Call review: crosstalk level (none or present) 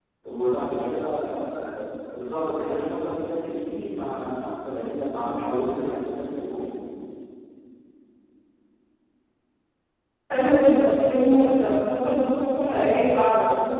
none